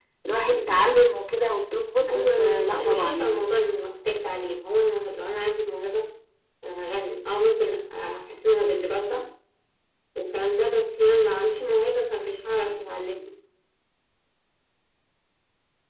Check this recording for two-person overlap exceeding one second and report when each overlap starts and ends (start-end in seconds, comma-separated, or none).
2.1-3.4